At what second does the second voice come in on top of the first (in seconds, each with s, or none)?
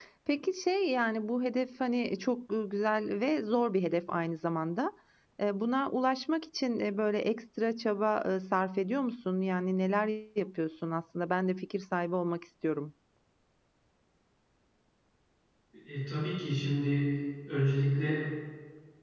none